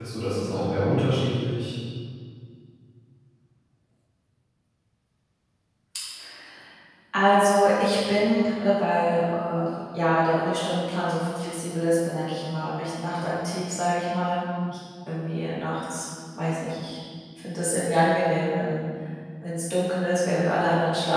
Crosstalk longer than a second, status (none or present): none